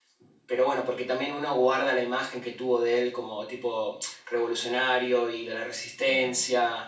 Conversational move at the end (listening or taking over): taking over